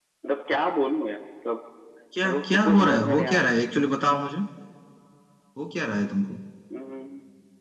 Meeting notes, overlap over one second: present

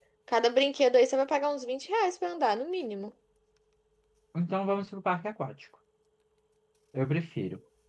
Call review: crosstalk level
none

